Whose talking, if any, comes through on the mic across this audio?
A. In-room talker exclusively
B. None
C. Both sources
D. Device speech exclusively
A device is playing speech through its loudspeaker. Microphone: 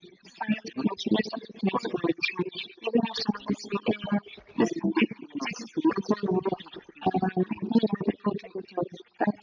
D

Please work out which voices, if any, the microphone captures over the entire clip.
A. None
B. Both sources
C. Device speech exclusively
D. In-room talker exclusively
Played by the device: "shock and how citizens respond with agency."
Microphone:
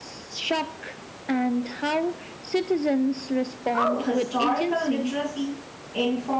B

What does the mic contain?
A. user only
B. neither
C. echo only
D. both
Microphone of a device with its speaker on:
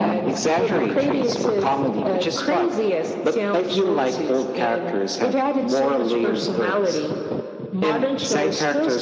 C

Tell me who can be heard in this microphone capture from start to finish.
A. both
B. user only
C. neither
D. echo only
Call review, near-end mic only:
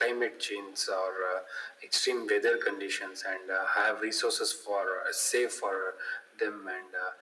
D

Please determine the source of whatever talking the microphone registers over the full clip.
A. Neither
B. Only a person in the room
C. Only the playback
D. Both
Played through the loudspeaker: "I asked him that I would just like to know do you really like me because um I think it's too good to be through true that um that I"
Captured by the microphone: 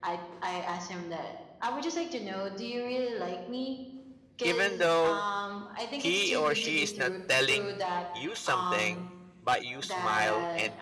D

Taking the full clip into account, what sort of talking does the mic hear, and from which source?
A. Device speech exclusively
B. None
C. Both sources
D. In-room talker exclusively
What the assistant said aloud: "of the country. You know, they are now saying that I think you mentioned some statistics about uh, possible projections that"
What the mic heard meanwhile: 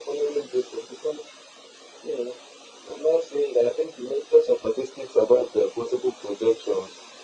A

